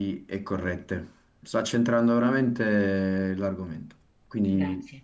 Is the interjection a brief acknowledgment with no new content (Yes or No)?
Yes